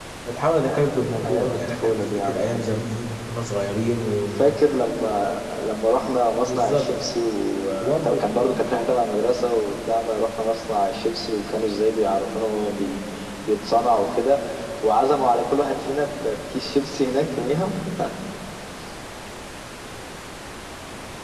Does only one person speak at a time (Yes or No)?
No